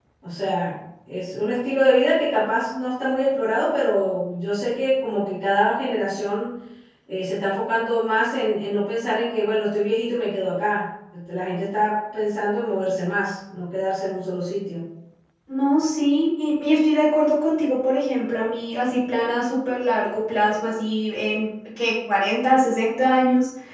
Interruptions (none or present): none